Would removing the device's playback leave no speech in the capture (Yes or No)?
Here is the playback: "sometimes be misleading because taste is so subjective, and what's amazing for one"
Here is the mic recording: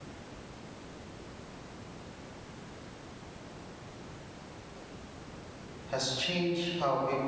No